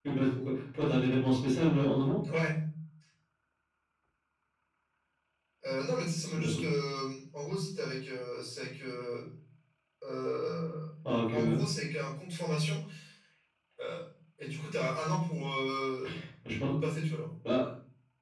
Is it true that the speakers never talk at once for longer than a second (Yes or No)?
Yes